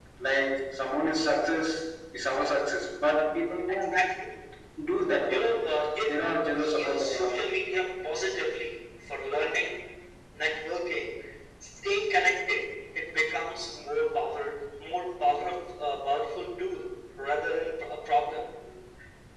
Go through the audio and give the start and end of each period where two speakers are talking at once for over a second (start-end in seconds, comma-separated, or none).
6.1-7.3